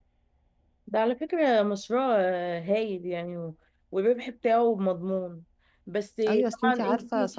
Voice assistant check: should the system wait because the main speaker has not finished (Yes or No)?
No